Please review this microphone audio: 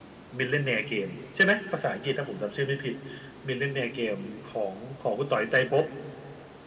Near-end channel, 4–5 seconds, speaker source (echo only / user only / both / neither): echo only